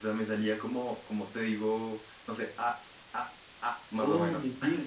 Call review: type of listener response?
taking over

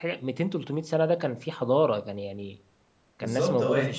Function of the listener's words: taking over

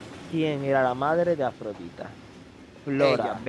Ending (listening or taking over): listening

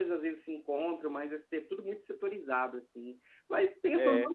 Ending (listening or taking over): listening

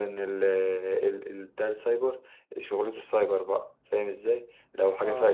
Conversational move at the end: listening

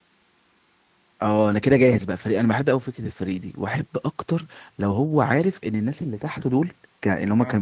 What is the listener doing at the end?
listening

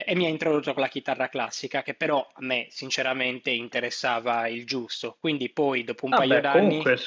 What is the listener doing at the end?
taking over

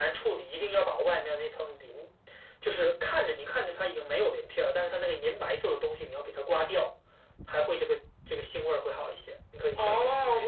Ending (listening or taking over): taking over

